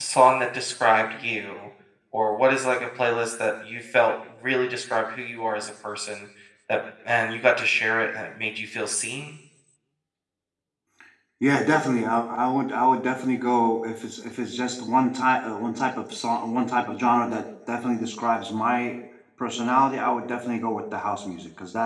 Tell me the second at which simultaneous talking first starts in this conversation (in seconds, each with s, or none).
none